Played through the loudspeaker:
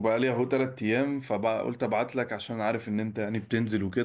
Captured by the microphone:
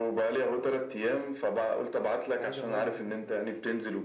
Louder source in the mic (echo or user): echo